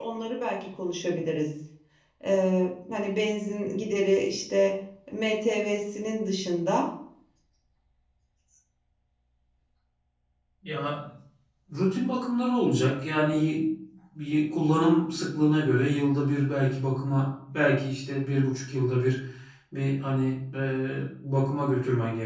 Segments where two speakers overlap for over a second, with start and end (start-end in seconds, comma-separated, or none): none